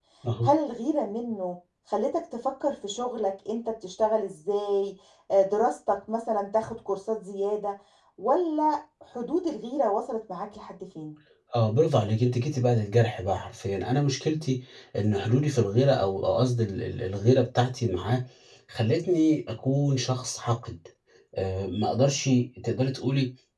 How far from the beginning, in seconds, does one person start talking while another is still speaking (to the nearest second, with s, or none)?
none